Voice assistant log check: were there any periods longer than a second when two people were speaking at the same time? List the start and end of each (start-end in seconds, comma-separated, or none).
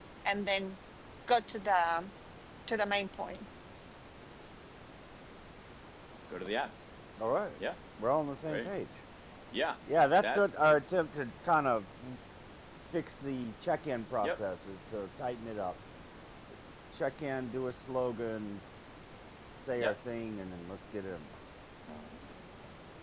none